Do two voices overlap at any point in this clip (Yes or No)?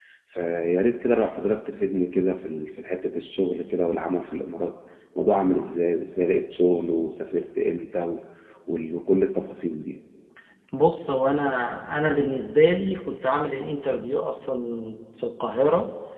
No